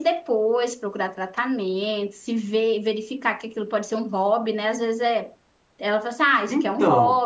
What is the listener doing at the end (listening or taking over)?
listening